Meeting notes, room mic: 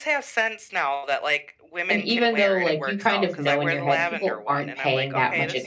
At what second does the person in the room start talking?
1.9 s

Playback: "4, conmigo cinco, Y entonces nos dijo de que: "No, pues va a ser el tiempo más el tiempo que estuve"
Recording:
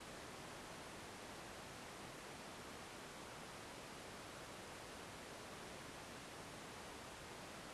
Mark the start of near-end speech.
none

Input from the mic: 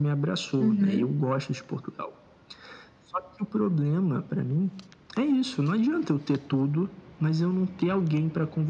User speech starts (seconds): 0.6 s

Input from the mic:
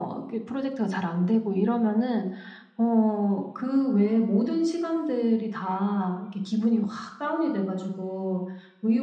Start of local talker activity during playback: none

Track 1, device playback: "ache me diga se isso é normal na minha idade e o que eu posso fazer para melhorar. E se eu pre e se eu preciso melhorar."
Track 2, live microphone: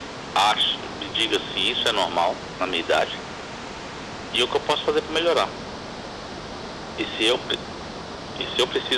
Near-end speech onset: none

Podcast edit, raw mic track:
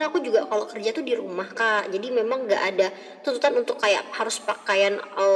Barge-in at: none

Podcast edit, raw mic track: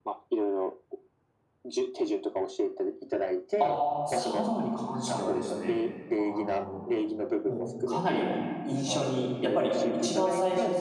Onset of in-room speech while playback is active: 3.6 s

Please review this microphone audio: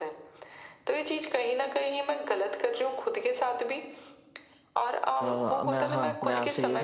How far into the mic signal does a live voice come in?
5.2 s

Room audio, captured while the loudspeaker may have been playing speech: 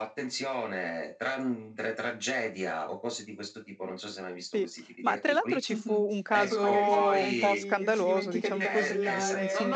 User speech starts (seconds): 4.5 s

